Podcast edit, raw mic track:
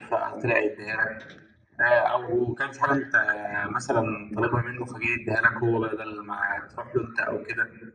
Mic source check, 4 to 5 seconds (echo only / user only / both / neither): echo only